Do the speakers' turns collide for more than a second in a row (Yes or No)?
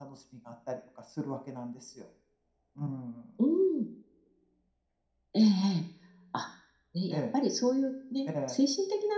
No